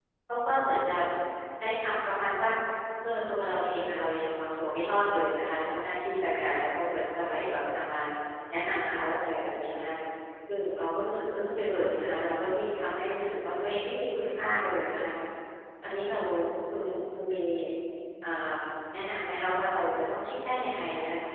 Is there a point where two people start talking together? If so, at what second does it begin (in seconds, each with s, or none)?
none